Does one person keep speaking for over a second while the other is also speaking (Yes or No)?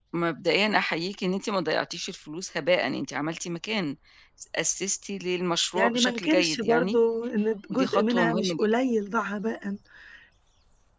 Yes